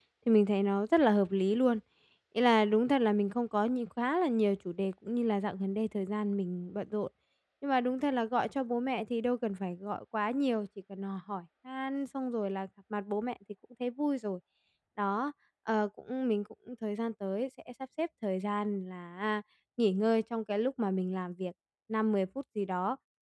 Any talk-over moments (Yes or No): No